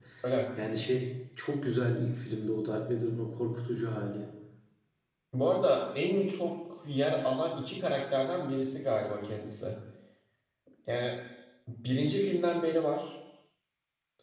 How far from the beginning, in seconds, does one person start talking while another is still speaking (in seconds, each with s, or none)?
none